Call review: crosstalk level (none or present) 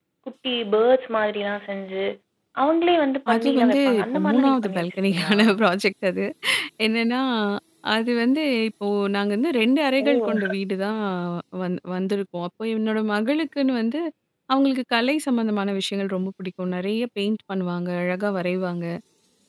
present